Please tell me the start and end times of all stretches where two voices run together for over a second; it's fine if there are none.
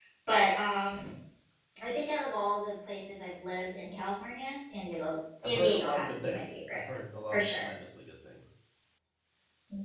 5.4-6.8

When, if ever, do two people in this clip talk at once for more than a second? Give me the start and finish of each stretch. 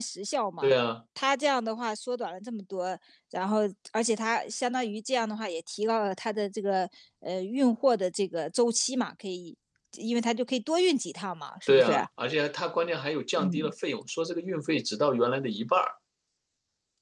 none

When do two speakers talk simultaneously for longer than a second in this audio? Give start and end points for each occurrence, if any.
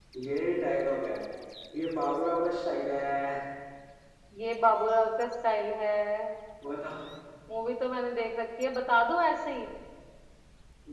none

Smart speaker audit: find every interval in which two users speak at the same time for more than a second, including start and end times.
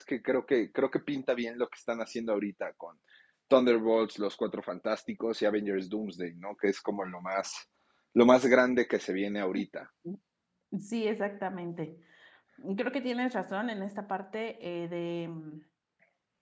none

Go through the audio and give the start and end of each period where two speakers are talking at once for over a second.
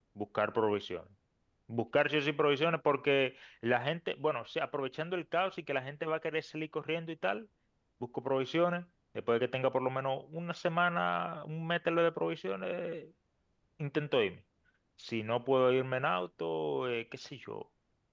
none

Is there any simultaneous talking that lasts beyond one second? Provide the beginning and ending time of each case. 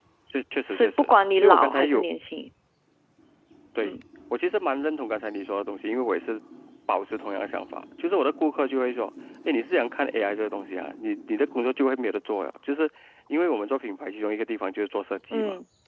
0.7-2.0

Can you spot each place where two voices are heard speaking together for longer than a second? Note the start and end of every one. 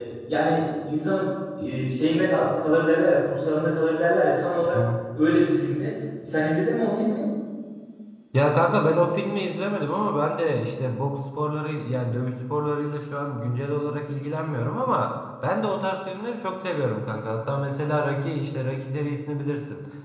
none

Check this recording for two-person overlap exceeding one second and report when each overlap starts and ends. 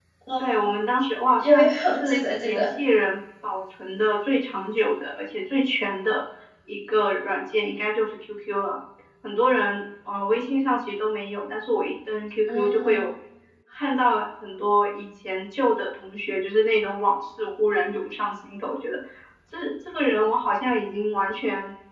1.4-2.7

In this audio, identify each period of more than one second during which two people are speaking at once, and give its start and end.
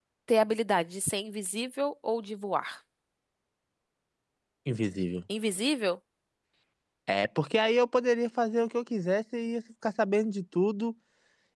none

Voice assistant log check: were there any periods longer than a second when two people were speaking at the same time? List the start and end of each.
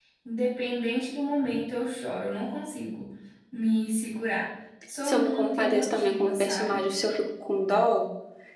5.0-6.8

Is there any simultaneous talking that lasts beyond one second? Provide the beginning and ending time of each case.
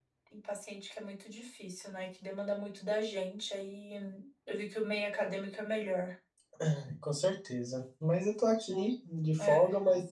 none

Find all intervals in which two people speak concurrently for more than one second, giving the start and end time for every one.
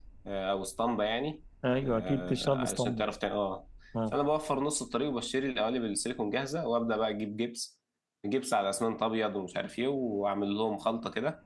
1.8-3.0

